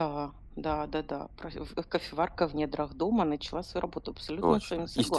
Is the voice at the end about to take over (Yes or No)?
Yes